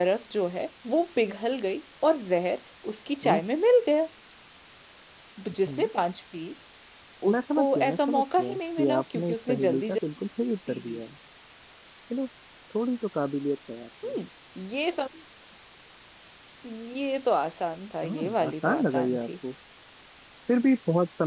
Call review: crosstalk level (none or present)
present